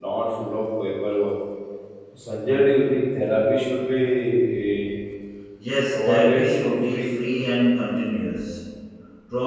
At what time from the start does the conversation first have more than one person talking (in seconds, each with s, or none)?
5.9 s